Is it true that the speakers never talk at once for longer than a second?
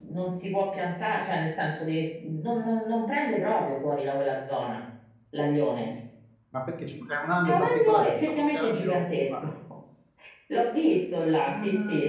No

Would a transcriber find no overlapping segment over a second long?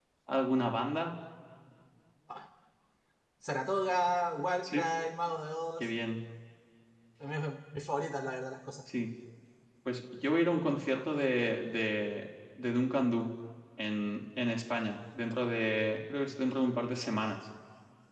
Yes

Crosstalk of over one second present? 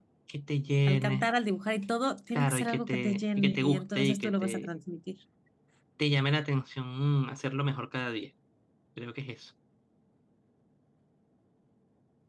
Yes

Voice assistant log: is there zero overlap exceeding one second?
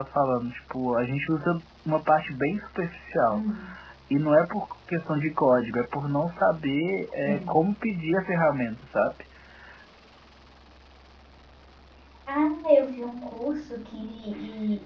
Yes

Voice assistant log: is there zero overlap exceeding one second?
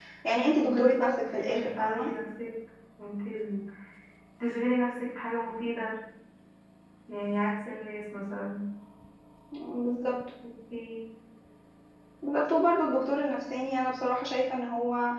No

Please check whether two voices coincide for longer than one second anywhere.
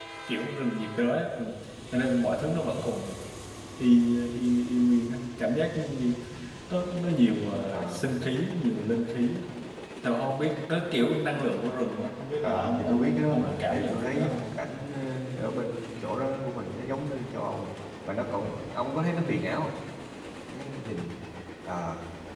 Yes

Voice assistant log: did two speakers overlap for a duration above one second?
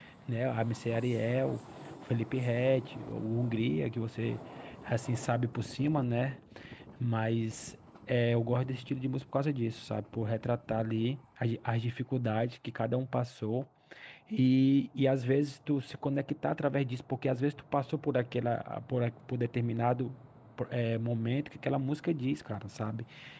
No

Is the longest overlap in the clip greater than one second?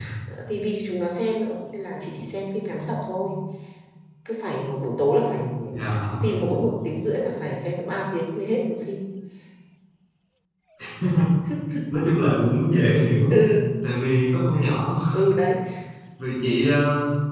No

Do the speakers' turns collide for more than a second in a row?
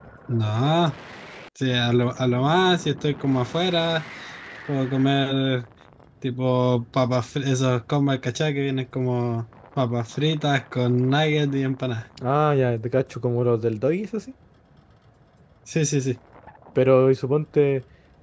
No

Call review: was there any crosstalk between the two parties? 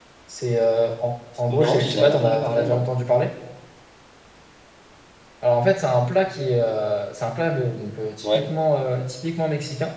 Yes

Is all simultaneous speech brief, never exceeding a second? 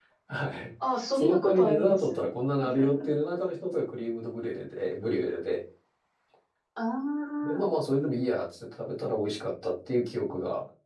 No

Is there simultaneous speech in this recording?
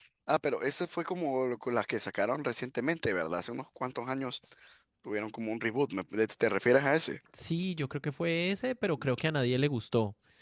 No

